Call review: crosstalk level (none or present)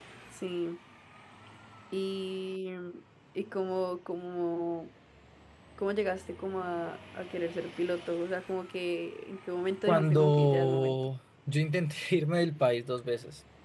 present